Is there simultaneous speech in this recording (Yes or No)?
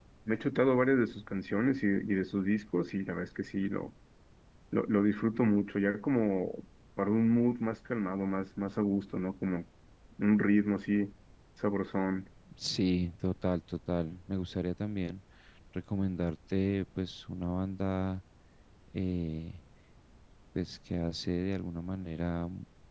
No